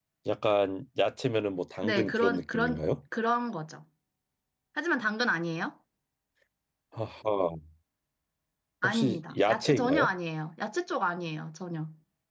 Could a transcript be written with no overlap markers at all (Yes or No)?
No